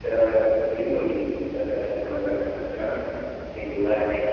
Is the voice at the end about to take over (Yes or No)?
No